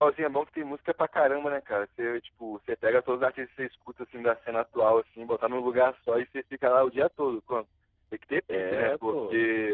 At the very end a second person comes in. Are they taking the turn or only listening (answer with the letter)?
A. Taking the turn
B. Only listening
B